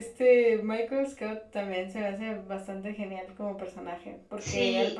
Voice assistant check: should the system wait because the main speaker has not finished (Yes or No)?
Yes